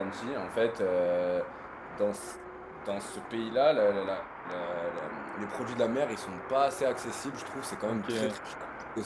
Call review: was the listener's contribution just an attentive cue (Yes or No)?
Yes